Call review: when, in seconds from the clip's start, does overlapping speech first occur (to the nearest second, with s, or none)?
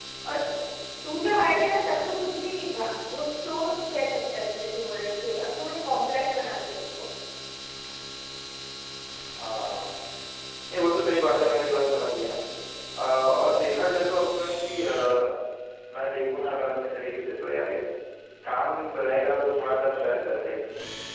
none